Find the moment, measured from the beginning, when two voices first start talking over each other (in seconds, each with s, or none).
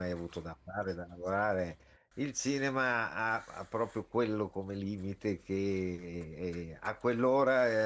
none